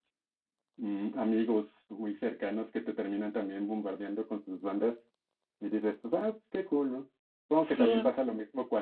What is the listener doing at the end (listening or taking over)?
listening